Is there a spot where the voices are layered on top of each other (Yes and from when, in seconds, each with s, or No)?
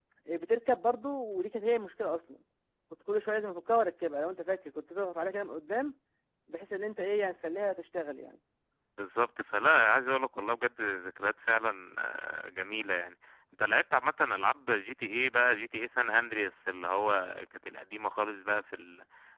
No